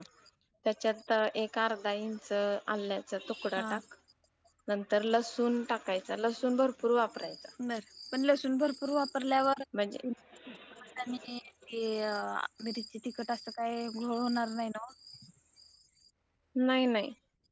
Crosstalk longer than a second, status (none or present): none